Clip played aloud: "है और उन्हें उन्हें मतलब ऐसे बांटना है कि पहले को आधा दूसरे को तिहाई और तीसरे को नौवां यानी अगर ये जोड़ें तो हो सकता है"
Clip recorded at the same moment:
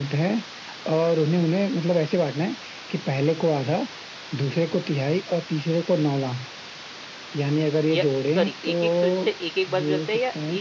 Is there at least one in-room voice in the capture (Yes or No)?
Yes